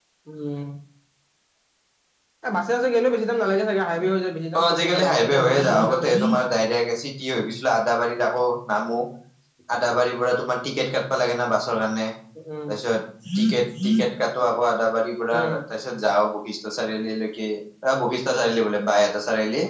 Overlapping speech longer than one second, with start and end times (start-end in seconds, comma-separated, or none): 4.6-6.1